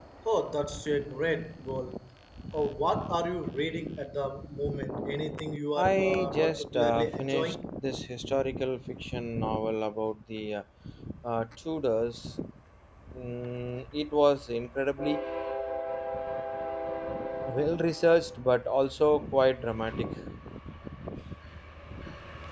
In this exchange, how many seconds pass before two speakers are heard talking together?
6 s

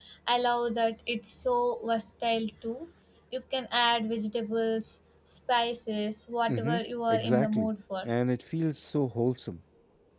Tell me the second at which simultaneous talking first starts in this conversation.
6 s

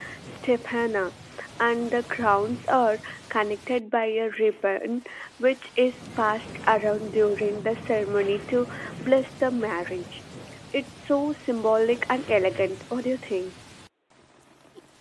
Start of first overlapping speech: none

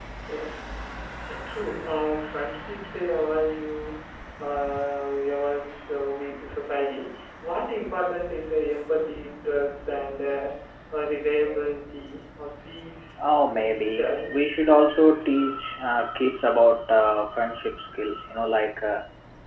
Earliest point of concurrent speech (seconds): 13 s

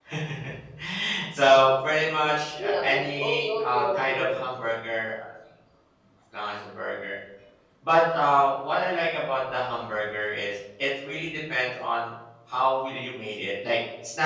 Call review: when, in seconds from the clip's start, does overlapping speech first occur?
3 s

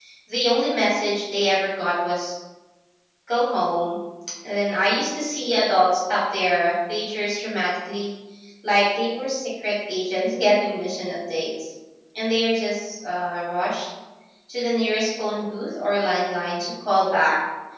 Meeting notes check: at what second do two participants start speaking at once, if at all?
none

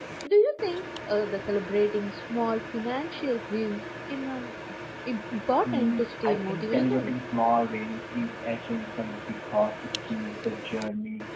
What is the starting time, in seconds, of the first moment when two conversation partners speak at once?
6 s

